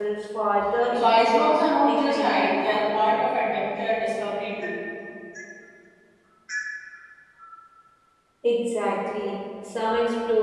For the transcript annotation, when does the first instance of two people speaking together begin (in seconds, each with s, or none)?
0.9 s